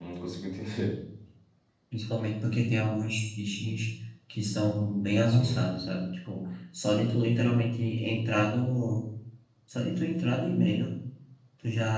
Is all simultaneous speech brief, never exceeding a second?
Yes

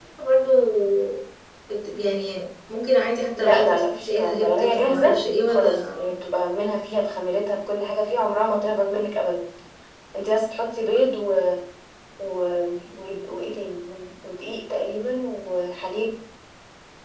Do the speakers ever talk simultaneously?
Yes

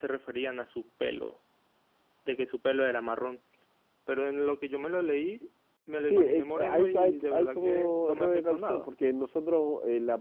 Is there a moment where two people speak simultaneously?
Yes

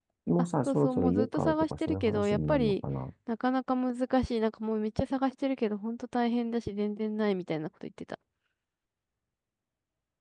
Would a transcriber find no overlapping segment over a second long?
No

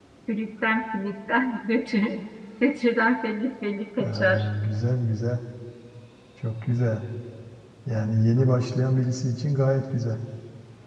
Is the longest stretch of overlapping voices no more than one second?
Yes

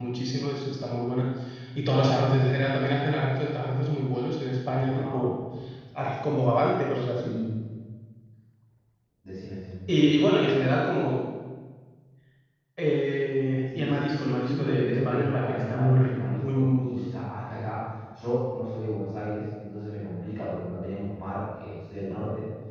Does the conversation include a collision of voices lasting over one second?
Yes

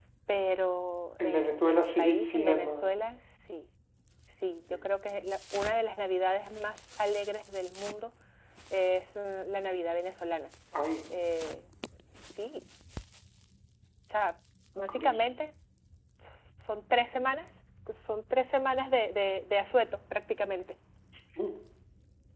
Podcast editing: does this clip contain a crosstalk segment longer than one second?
Yes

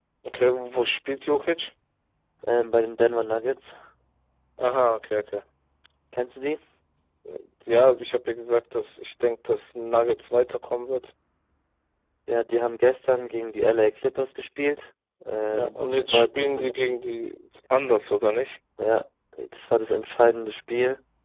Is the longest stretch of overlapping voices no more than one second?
No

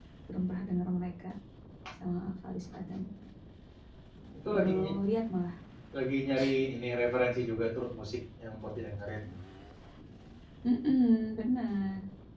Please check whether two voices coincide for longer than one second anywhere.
No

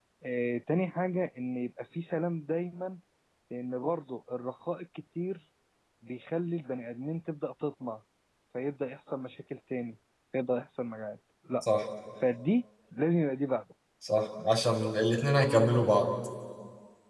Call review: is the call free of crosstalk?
Yes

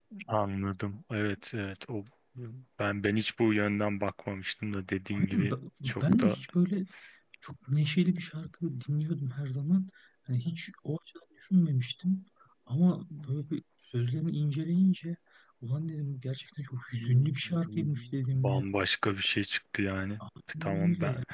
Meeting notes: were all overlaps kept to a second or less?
No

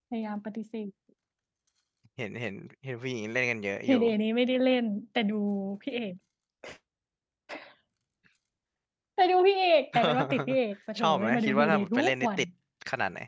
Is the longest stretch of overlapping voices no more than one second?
No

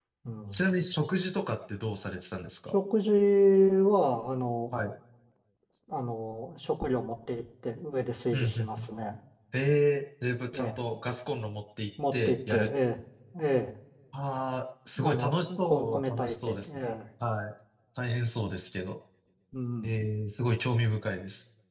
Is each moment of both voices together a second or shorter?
No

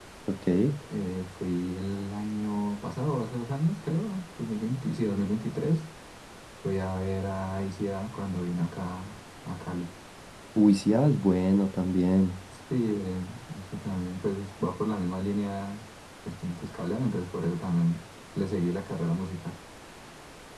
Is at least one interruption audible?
No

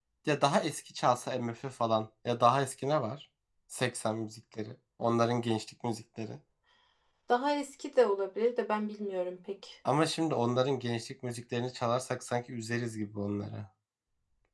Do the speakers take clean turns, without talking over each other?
Yes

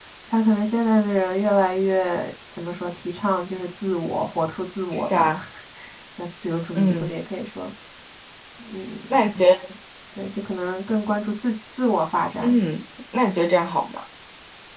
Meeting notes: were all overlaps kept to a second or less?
Yes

